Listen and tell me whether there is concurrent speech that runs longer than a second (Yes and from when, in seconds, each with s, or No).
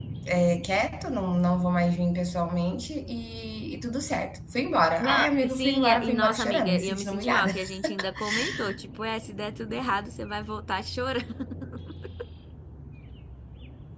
Yes, from 5.0 s